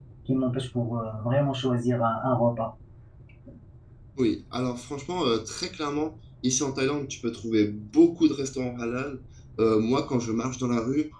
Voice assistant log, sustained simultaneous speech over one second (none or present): none